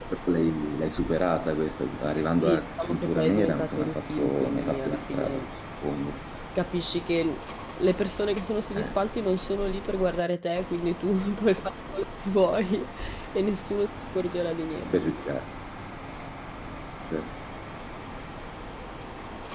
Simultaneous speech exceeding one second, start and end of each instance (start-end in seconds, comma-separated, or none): 2.4-5.4